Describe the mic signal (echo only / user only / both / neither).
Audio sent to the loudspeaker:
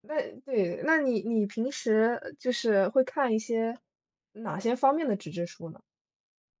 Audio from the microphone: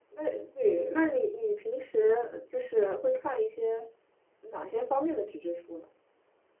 echo only